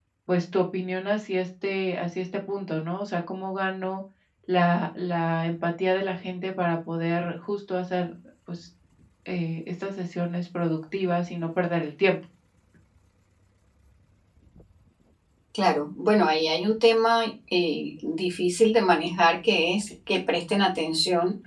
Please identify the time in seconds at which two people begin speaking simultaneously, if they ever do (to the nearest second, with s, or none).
none